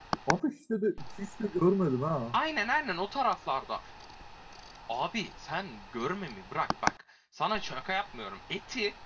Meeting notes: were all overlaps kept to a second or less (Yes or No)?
Yes